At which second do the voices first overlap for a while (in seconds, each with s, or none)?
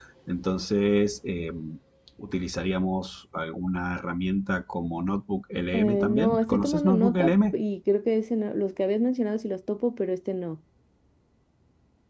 5.7 s